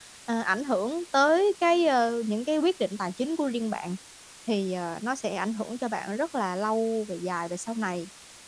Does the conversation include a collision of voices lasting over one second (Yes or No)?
No